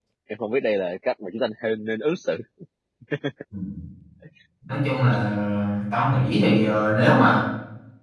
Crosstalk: none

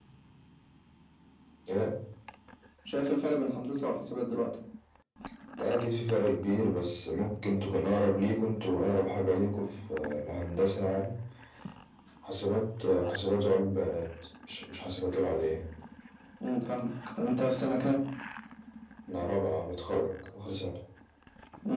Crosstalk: none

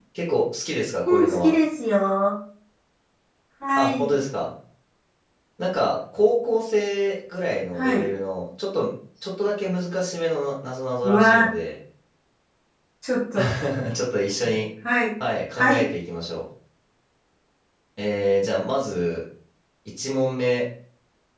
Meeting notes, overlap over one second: none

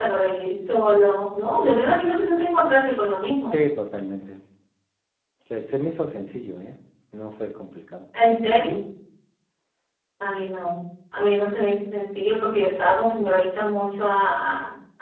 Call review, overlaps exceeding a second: none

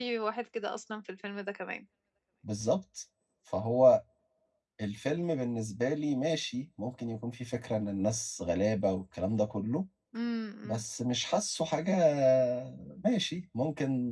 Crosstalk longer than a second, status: none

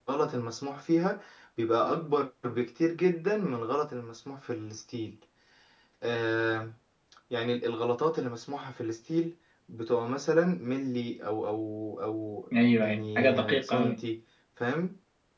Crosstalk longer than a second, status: present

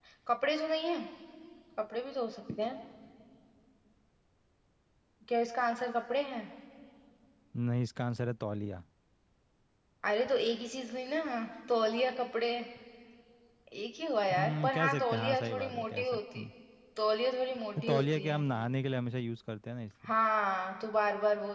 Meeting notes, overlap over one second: present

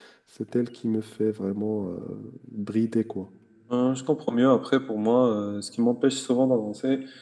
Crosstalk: none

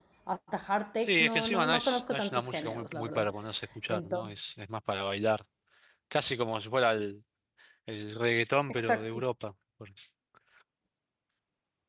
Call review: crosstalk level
present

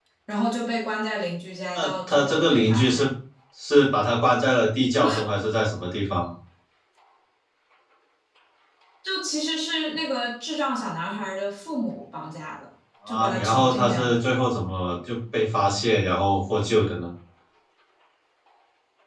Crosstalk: present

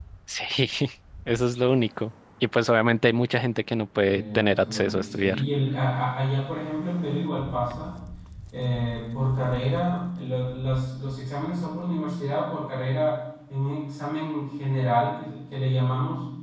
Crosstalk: present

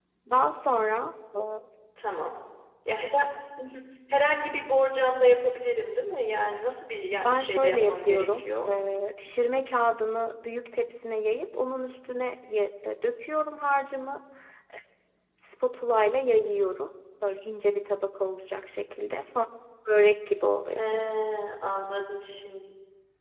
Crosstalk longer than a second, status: present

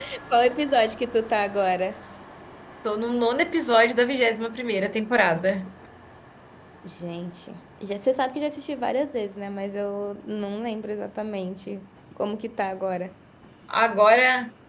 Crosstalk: none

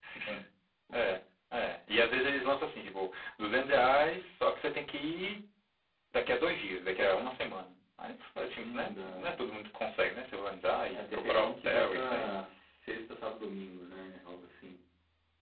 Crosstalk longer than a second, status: present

